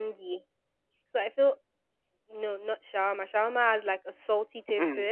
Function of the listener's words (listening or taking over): listening